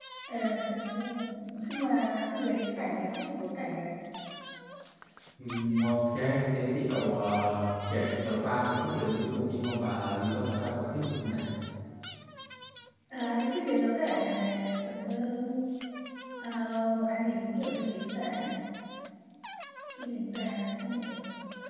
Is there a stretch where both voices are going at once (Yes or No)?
No